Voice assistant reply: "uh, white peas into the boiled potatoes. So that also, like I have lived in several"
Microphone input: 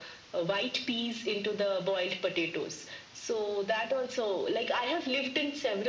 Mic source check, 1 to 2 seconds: echo only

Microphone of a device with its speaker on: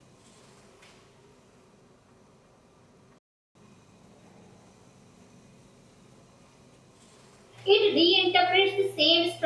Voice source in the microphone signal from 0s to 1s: neither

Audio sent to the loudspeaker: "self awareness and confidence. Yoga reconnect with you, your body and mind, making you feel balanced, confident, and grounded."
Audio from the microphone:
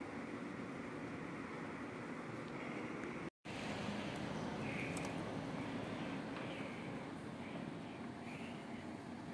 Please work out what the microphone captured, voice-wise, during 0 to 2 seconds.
neither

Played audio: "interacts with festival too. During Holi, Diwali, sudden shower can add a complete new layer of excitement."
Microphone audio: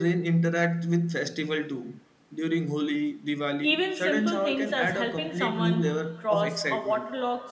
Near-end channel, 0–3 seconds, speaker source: echo only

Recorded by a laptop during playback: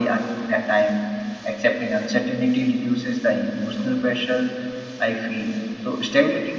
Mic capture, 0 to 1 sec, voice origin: echo only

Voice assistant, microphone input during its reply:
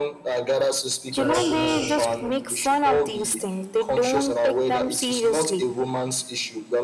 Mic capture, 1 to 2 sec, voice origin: both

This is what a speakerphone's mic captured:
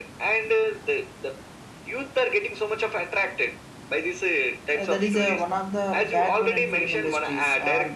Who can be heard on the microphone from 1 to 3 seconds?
echo only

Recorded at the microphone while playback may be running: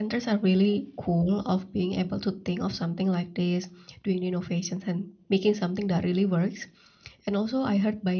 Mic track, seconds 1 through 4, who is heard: user only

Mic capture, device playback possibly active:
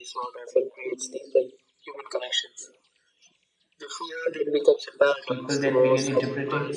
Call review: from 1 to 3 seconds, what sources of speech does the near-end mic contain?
echo only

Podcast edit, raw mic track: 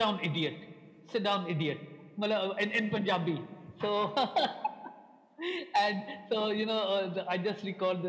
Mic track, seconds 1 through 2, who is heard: echo only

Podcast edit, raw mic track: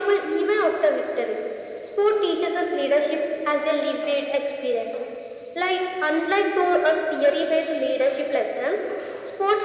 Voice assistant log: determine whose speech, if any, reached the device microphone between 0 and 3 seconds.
echo only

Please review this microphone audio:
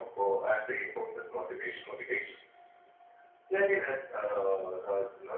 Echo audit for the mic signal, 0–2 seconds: echo only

